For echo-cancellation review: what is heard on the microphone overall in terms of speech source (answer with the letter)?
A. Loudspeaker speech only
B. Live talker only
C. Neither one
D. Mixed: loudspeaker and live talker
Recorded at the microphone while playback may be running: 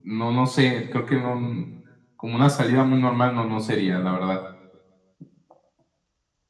A